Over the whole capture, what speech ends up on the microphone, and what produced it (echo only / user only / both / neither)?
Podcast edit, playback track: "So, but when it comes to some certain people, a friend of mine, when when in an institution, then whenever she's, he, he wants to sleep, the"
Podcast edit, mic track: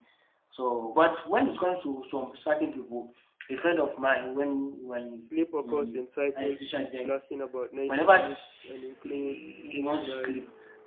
both